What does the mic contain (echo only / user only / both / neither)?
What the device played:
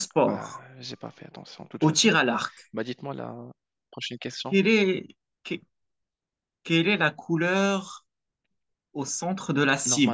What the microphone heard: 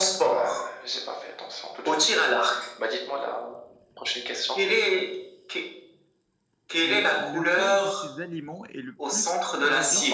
both